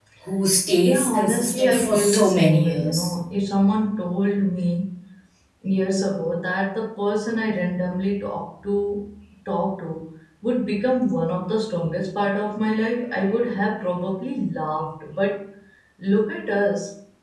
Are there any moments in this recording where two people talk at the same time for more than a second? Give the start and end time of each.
0.8-3.1

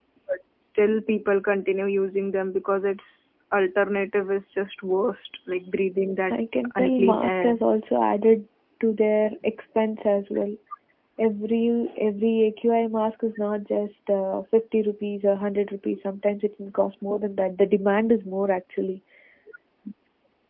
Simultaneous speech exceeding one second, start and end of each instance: 6.3-7.6

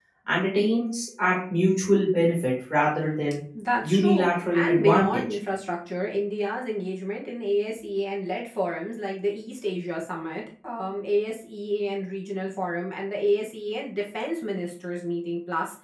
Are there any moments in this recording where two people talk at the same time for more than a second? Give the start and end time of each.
3.8-5.2

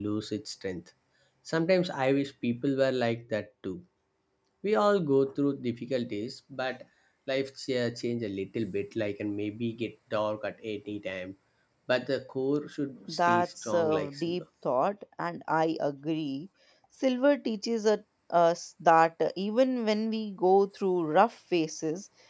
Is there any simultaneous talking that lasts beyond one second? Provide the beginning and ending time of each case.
13.1-14.4

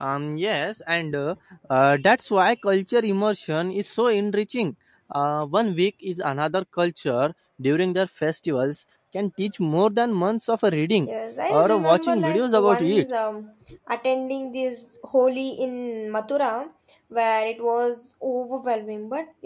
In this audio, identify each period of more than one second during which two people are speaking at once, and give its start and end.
11.5-13.1

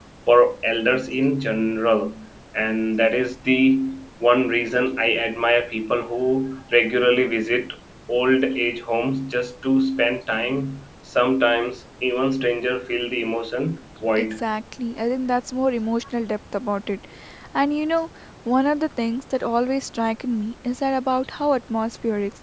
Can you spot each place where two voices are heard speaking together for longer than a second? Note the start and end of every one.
none

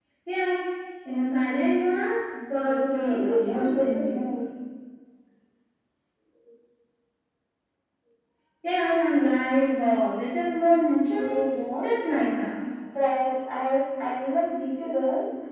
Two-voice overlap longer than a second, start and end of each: 2.5-4.3

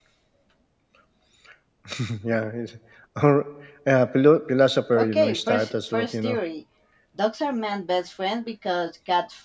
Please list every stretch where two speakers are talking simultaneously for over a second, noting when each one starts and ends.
5.0-6.4

